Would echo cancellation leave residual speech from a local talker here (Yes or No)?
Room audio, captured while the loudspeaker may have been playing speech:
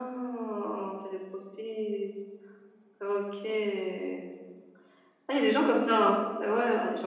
No